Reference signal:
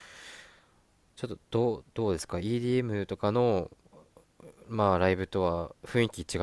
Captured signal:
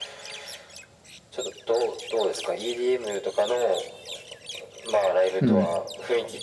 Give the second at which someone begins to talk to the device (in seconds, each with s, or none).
5.4 s